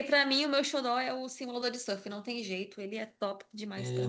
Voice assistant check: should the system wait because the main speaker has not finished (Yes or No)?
No